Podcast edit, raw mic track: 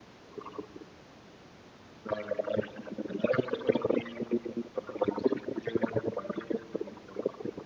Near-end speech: none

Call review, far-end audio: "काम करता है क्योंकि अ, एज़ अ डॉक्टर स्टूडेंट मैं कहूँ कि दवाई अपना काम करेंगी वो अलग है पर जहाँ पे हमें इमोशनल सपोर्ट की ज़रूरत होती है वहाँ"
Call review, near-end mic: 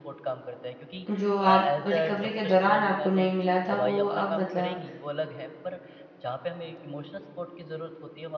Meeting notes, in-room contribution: present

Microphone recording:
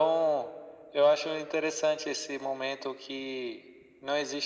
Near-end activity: none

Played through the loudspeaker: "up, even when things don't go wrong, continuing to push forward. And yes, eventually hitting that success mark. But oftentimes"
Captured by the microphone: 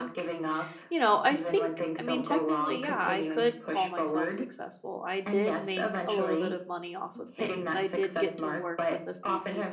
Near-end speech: present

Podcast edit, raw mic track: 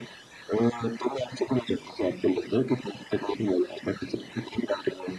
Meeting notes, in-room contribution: none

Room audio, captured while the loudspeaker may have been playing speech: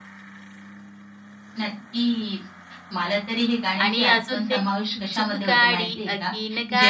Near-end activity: present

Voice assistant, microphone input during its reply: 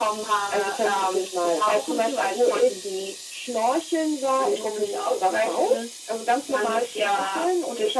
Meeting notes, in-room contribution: none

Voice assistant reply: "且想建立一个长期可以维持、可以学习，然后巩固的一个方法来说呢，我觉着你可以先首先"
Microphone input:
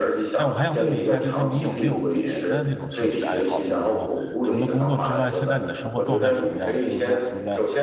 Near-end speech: present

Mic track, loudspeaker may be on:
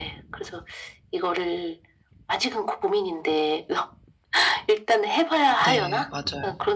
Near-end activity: present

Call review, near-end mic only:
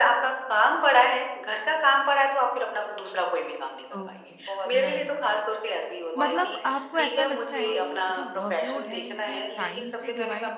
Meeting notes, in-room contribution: present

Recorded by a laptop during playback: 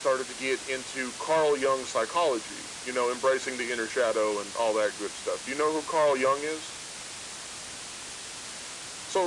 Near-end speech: none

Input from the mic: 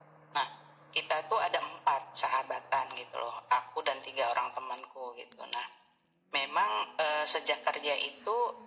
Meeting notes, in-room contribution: none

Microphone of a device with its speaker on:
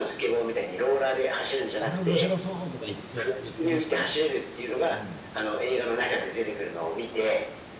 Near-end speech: present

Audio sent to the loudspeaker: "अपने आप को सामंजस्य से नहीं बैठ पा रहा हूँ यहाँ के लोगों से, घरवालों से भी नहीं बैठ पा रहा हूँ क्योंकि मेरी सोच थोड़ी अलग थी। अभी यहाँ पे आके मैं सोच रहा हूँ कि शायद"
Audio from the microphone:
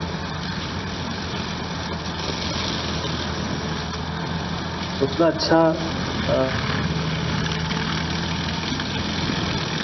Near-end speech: present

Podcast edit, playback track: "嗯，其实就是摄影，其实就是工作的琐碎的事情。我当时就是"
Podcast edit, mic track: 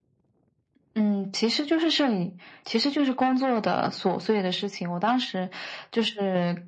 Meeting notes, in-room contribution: none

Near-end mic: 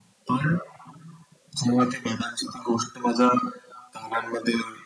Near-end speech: none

